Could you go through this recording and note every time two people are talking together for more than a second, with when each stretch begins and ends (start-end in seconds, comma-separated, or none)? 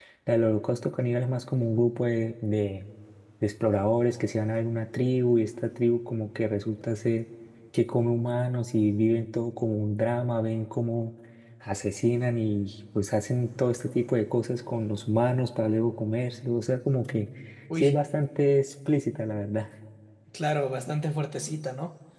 none